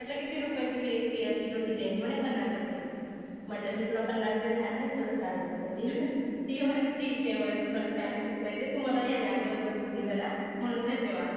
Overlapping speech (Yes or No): No